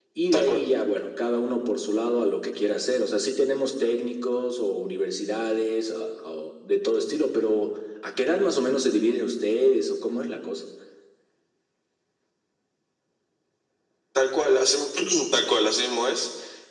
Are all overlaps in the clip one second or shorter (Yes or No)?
Yes